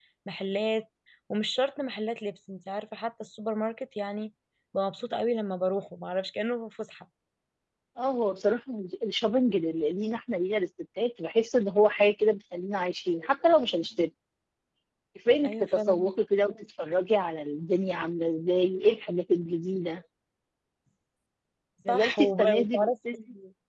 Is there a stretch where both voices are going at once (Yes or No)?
Yes